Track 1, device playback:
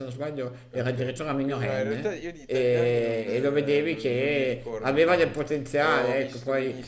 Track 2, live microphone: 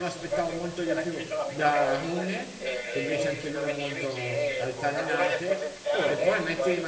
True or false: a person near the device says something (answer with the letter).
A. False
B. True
B